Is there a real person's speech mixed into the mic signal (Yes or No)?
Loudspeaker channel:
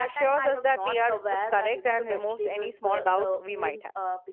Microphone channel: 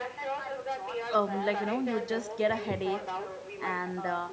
Yes